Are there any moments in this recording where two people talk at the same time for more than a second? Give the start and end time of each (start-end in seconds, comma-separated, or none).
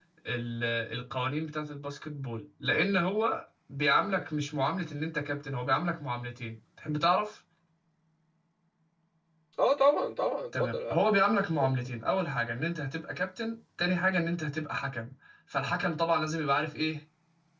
none